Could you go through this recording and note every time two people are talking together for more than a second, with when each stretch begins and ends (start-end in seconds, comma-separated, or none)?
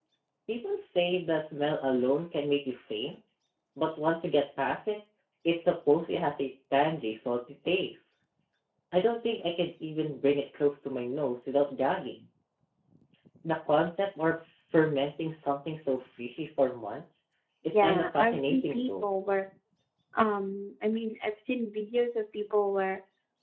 17.7-19.1